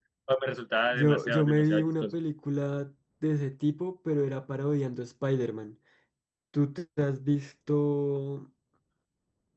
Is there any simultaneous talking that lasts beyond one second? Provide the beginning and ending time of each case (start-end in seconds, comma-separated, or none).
0.9-2.1